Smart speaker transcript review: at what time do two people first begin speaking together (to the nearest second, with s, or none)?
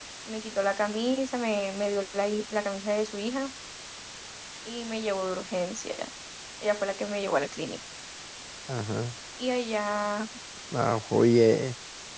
none